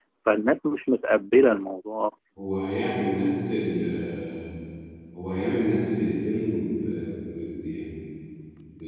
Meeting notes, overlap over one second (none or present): none